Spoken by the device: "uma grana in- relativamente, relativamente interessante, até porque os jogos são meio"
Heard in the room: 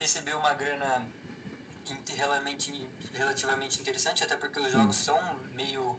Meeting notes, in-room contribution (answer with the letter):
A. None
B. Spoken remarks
B